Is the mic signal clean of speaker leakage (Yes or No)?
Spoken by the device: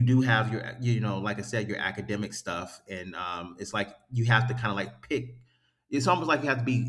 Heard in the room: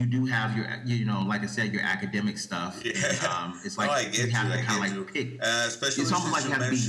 No